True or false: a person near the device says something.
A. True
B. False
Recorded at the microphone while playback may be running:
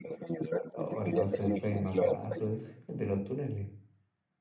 A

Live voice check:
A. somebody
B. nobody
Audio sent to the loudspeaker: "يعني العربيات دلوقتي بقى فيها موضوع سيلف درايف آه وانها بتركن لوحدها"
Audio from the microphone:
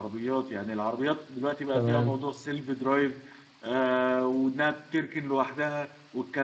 A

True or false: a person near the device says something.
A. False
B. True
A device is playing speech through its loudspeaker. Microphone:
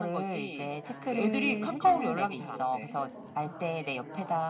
B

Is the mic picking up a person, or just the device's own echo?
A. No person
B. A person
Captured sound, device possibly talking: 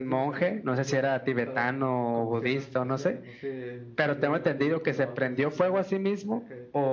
B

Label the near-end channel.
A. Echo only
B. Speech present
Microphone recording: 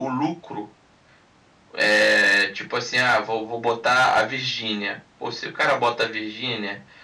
A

